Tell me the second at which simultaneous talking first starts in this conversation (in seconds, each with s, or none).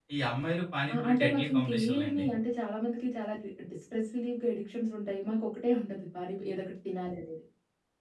0.9 s